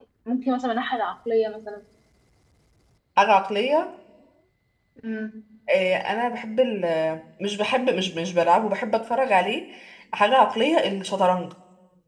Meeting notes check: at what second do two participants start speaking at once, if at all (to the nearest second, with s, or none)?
none